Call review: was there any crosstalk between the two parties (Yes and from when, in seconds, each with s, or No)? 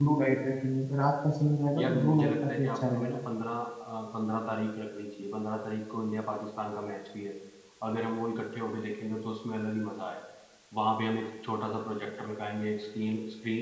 Yes, from 1.8 s